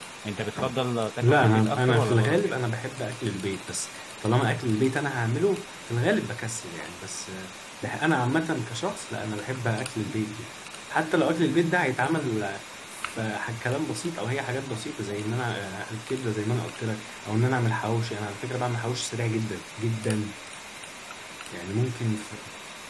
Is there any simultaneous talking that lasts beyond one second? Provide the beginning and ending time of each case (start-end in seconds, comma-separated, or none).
1.2-2.5